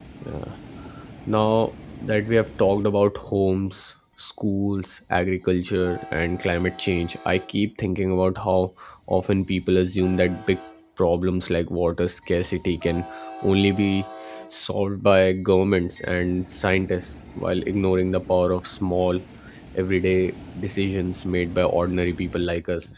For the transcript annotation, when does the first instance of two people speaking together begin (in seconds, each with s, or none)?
none